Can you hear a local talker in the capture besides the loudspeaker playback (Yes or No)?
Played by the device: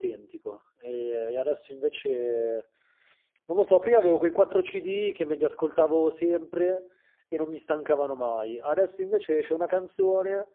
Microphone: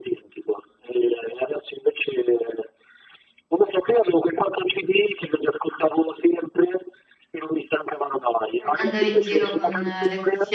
Yes